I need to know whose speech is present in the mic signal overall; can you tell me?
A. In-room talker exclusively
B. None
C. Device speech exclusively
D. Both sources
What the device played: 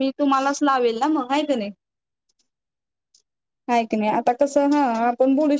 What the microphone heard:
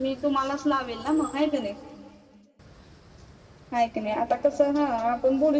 C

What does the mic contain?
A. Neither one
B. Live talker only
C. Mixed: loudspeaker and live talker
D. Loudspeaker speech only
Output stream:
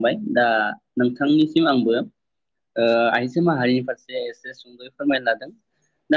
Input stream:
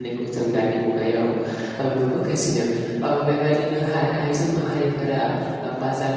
B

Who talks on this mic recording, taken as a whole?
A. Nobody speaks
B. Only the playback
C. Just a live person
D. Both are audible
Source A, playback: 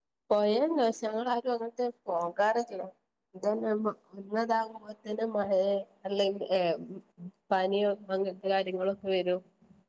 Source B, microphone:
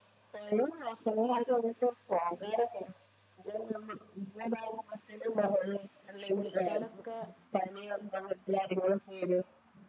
D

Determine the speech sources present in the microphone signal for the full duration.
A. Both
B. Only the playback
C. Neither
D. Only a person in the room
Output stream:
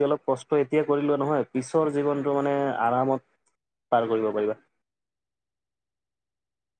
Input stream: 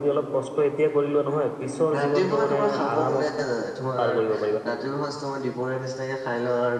A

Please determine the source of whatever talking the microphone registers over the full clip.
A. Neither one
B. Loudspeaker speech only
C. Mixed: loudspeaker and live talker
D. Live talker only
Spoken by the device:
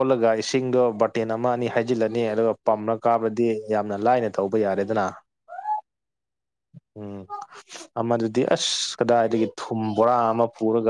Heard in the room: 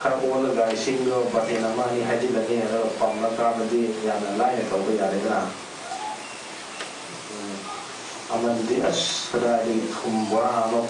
B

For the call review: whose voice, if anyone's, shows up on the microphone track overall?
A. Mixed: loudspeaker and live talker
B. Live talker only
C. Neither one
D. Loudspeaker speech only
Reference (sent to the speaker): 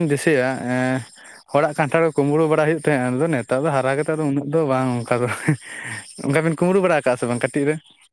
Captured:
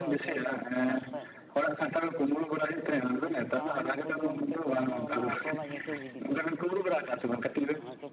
A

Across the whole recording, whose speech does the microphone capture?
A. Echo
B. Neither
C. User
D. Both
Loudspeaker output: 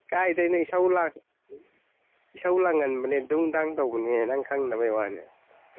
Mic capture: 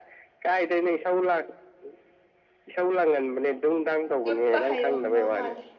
D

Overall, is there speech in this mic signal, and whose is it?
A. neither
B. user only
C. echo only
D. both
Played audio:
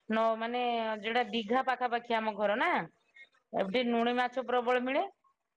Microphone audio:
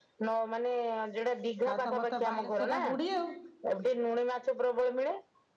D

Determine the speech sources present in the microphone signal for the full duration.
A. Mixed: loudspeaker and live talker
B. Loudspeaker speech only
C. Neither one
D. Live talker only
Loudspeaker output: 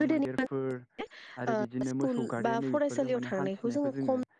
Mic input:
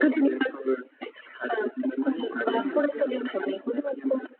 A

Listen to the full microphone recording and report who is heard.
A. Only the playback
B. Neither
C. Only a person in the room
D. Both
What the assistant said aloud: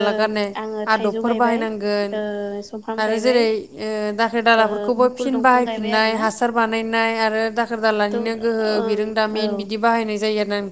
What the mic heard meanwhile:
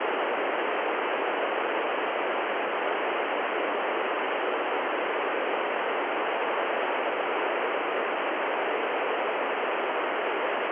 B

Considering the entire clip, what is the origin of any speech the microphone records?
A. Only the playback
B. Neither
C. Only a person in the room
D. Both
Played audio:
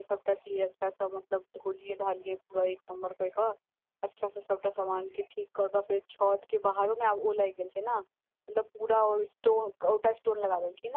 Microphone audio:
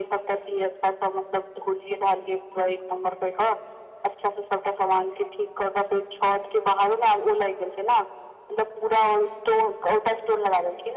A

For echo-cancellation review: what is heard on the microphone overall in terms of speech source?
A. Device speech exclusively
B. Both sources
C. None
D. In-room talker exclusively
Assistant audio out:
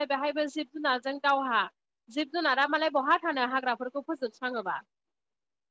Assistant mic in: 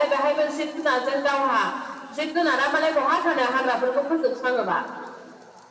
A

